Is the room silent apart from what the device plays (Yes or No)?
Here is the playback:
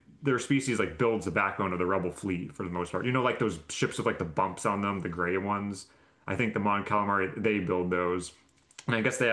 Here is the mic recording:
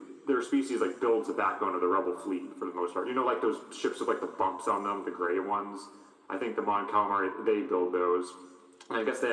Yes